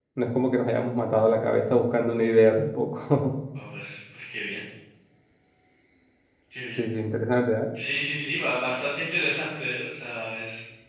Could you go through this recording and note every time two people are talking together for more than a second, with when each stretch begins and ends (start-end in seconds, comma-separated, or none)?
none